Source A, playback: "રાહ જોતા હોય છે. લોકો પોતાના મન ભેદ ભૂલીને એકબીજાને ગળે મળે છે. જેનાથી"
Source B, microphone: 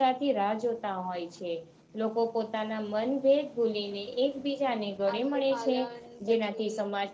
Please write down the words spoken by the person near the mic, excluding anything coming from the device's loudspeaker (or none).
આશોપાલન પછી